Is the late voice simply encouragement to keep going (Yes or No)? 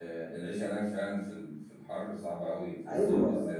No